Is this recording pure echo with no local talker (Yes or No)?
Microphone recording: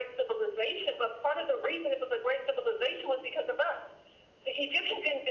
Yes